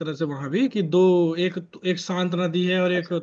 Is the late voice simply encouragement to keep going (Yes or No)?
Yes